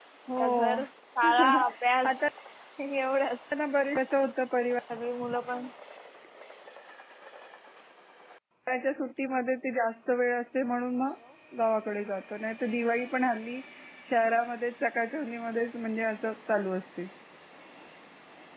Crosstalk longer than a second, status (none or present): none